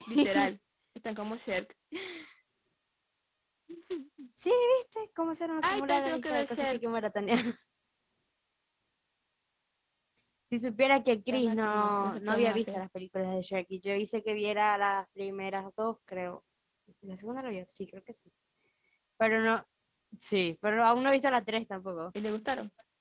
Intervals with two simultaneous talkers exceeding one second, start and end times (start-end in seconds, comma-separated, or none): 5.6-6.8, 11.3-12.8